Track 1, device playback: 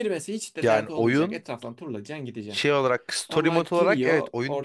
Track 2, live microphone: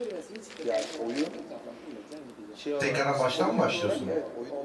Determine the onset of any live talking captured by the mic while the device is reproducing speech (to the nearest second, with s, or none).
3 s